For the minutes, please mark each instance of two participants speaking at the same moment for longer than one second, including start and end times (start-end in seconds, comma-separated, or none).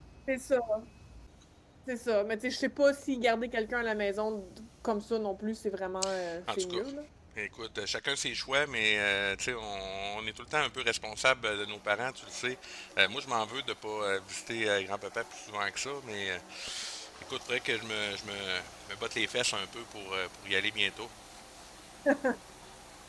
none